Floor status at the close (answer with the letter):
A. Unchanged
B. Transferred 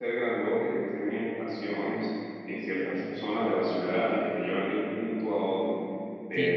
B